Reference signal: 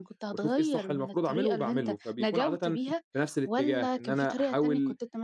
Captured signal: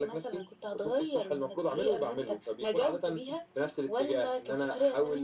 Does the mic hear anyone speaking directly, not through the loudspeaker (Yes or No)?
No